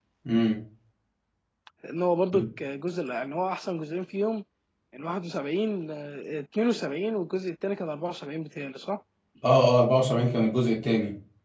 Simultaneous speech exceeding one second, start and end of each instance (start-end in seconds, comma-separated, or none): none